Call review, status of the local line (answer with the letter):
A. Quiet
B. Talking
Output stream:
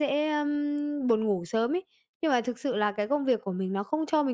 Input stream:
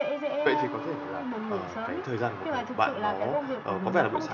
B